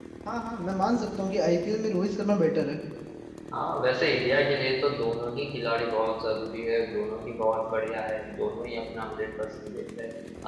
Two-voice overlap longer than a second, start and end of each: none

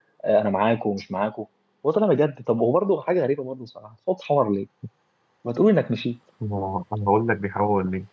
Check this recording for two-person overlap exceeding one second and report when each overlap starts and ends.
none

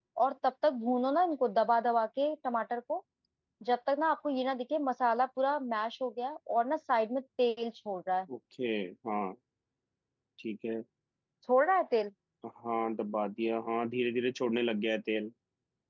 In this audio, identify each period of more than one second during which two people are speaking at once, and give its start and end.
none

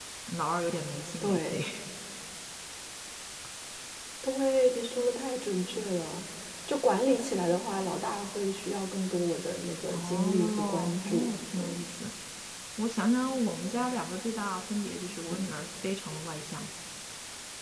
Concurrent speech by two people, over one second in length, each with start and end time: 9.9-11.8

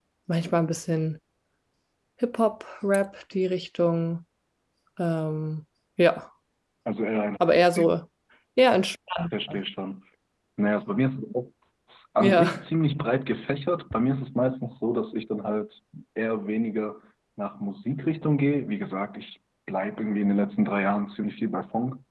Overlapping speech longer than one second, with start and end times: none

